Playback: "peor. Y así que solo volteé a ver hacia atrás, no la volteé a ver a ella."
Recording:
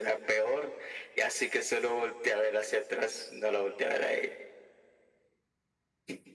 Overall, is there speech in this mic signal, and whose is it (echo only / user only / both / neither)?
echo only